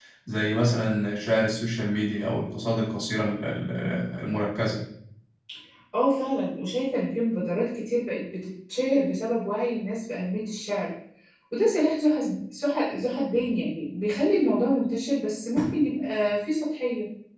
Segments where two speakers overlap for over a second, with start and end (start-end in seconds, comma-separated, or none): none